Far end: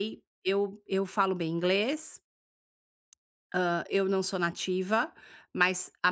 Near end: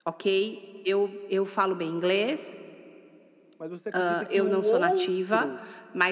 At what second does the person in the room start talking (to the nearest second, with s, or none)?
4 s